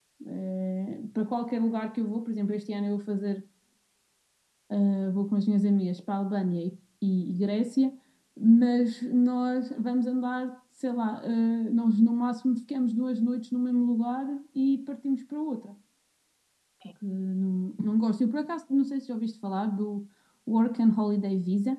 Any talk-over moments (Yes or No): No